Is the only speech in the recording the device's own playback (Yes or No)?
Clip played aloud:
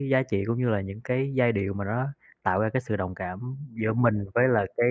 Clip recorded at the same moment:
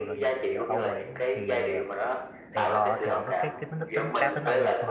No